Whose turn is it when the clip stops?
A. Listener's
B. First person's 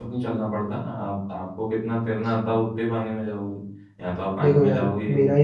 A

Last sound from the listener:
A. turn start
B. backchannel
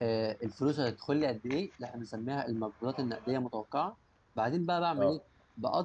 B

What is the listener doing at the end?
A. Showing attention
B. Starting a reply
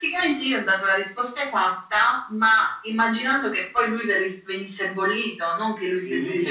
B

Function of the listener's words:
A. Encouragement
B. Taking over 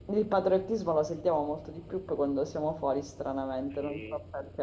B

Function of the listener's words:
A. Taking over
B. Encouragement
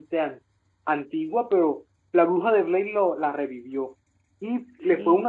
B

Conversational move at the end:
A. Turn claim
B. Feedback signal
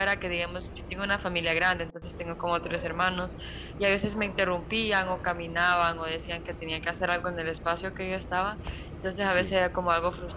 B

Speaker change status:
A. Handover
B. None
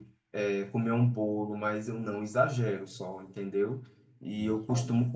B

